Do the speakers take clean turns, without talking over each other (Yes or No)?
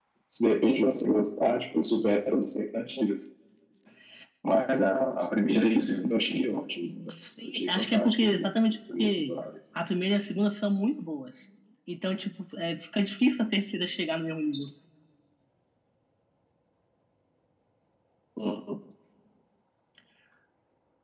No